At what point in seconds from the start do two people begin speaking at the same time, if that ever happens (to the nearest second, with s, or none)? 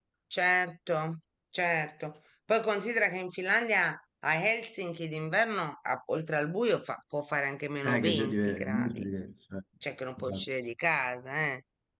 8 s